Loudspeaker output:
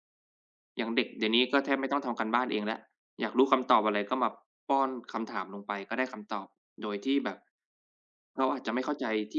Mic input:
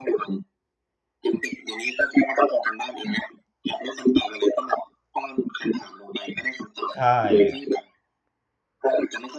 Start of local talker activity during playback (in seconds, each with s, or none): 6.9 s